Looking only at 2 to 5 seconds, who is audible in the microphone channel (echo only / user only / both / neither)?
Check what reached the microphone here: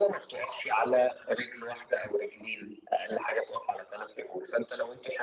echo only